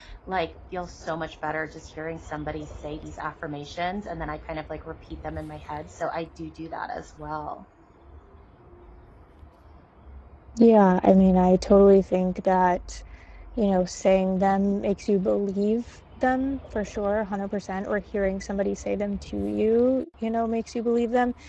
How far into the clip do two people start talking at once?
none

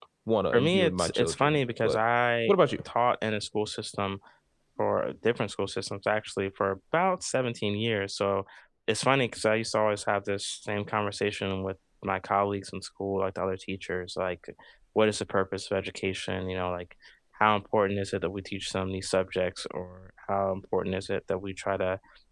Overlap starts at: 0.5 s

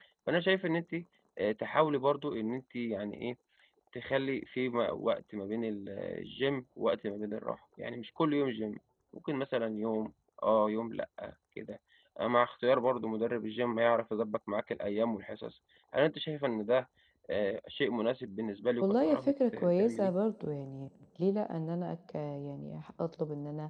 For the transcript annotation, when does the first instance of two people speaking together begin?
18.8 s

